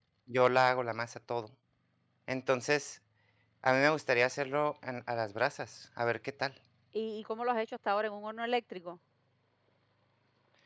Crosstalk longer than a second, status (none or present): none